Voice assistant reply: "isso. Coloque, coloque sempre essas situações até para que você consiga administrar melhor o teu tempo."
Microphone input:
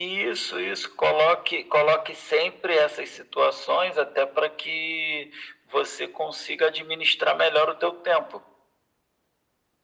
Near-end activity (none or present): none